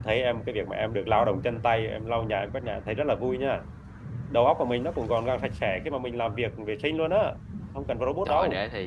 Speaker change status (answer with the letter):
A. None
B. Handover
B